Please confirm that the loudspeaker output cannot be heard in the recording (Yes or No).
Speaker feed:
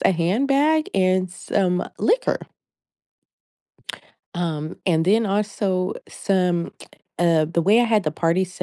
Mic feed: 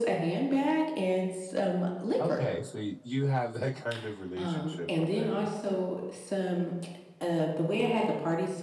No